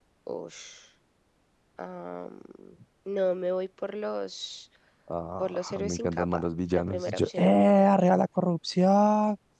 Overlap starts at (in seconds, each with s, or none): 5.4 s